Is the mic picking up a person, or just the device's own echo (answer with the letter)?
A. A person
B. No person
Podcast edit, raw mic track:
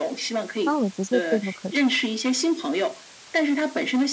A